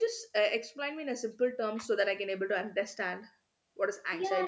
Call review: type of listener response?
taking over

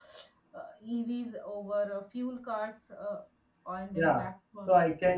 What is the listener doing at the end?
taking over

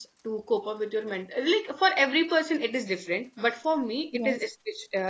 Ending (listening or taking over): listening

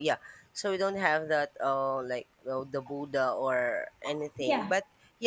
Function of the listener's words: listening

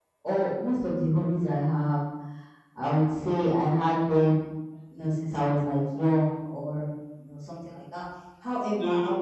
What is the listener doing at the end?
listening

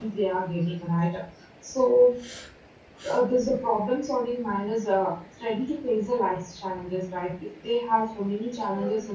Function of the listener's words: listening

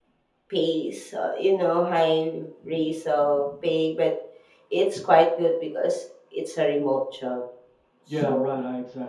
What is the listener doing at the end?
taking over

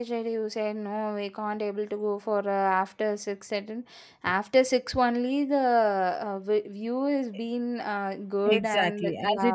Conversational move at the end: taking over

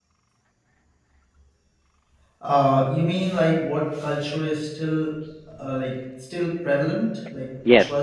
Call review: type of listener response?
taking over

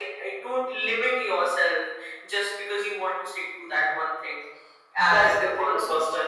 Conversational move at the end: taking over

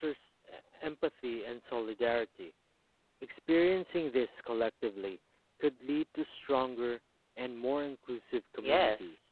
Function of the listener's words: taking over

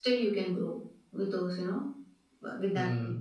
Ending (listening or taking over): taking over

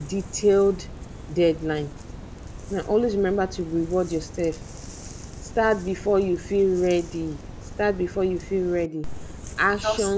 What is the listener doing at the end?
listening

